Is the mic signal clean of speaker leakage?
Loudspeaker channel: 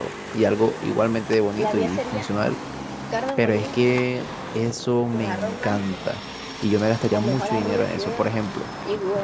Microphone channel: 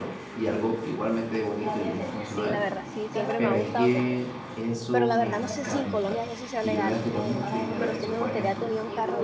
No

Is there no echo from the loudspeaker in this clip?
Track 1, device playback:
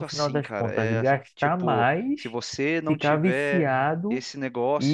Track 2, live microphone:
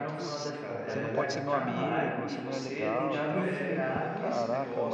No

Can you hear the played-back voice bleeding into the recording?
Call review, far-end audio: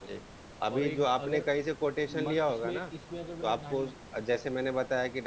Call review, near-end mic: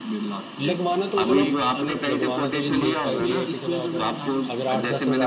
Yes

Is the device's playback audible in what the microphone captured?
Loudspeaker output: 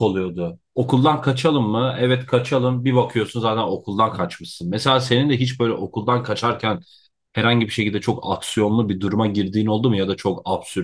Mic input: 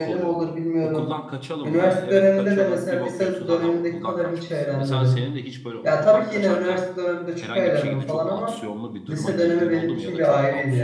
Yes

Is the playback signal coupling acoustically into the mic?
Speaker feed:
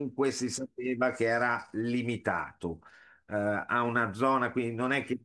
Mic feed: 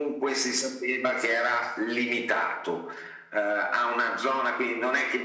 Yes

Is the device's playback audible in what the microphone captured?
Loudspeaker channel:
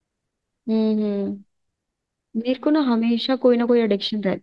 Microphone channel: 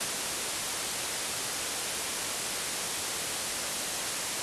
No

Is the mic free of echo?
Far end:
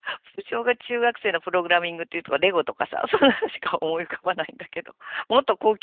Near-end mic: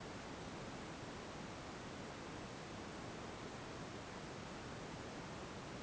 Yes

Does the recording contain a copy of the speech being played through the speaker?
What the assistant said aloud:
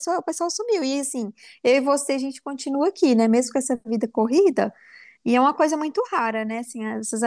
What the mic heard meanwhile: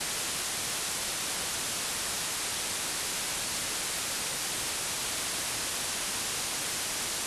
No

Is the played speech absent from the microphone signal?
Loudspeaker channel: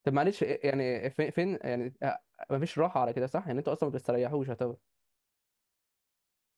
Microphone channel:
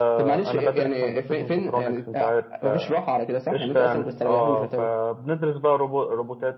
No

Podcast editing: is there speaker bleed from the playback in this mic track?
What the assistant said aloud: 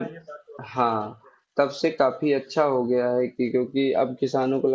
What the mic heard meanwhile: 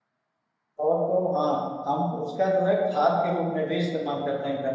No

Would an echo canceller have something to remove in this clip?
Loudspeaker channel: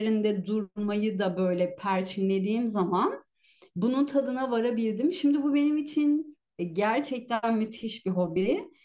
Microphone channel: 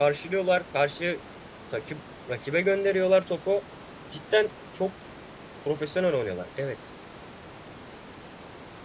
No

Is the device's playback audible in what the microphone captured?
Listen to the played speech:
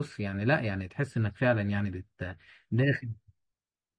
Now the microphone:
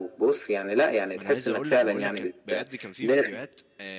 Yes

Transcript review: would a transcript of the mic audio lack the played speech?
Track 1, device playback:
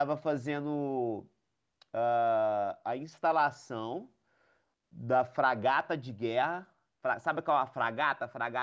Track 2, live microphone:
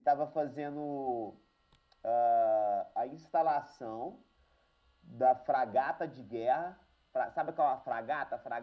No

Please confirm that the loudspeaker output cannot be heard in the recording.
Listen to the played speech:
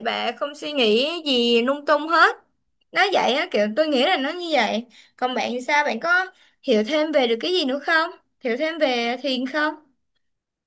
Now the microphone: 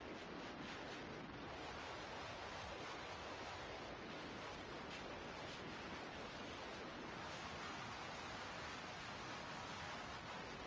Yes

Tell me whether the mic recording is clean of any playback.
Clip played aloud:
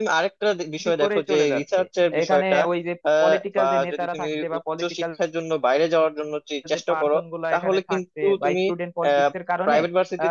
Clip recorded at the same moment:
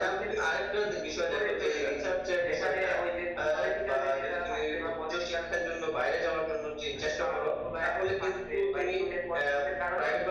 No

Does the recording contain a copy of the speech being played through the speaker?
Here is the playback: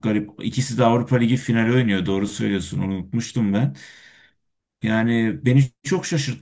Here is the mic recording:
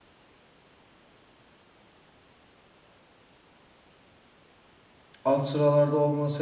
No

